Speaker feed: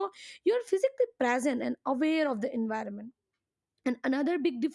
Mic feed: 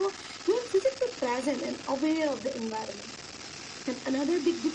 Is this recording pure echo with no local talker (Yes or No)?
Yes